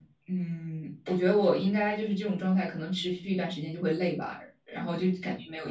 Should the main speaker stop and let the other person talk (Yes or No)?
No